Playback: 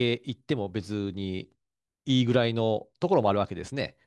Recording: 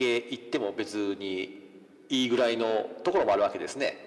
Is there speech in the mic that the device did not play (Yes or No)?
No